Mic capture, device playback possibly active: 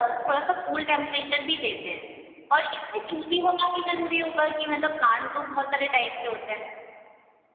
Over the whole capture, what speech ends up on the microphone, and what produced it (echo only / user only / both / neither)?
echo only